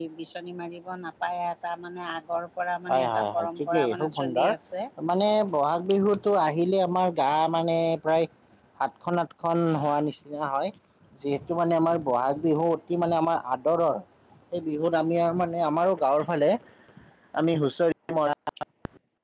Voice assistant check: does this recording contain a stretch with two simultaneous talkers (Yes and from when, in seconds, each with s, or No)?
Yes, from 2.9 s